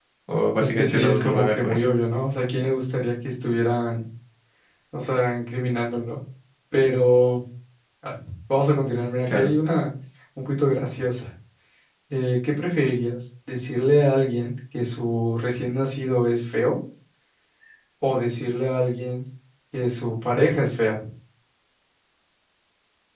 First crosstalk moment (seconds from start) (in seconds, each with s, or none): 0.6 s